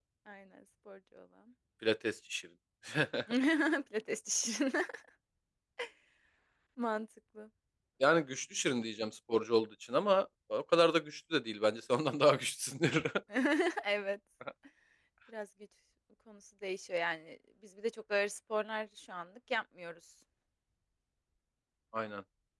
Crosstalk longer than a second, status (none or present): none